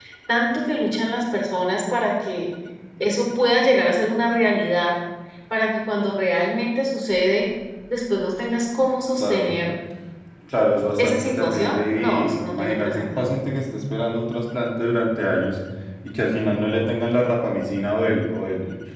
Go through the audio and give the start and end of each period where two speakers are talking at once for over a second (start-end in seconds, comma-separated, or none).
11.0-13.1